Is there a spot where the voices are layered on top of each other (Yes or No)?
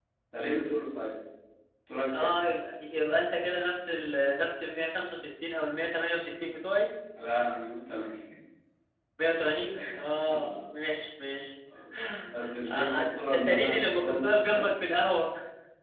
Yes